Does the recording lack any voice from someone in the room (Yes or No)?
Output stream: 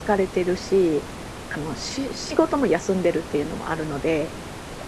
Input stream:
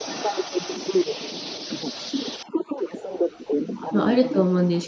No